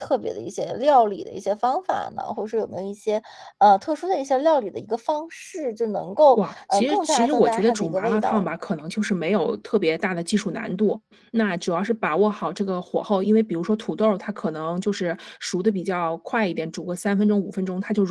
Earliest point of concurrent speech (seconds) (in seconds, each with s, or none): 6.3 s